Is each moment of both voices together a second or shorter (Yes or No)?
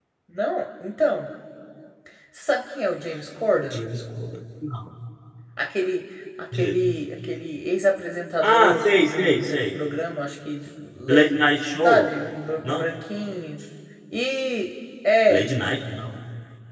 No